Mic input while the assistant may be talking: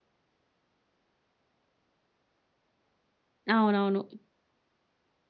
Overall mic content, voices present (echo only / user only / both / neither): user only